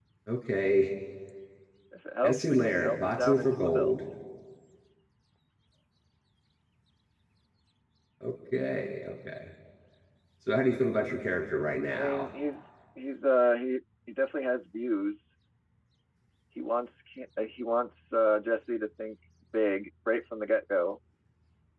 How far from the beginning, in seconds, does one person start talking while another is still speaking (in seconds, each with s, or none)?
2.2 s